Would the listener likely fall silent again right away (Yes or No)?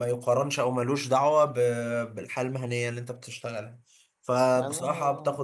Yes